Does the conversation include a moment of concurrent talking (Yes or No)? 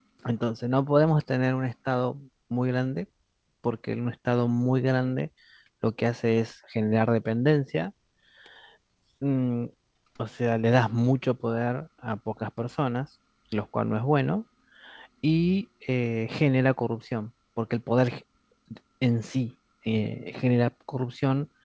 No